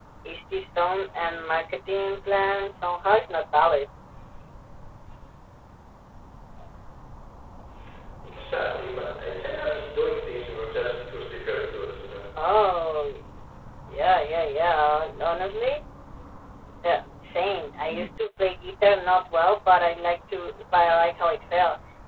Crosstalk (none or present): none